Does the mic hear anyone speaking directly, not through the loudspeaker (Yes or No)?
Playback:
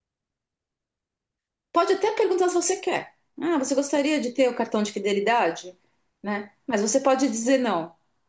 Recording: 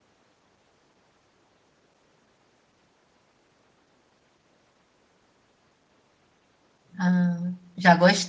Yes